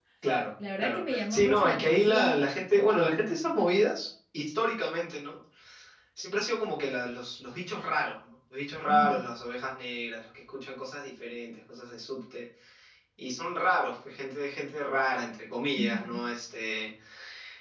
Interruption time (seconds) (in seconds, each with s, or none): 0.8 s